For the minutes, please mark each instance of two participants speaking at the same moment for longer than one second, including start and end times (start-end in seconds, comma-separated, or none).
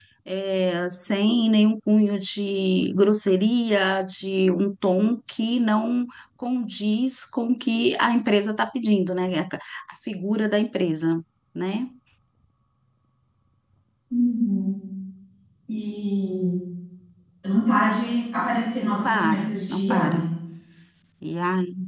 19.0-20.3